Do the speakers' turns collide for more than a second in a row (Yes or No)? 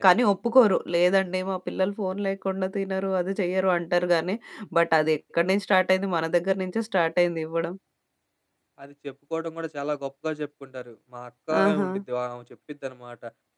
No